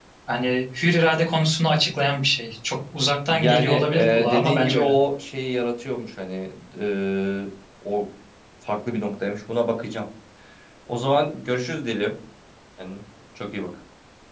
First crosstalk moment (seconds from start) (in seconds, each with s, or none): 3.3 s